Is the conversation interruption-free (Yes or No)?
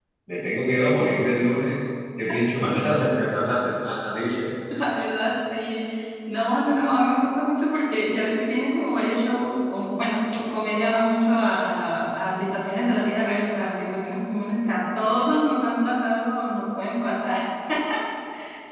Yes